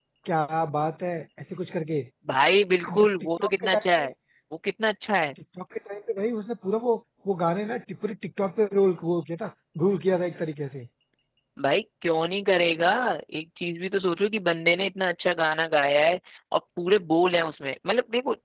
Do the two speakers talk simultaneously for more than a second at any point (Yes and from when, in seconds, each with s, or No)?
Yes, from 2.9 s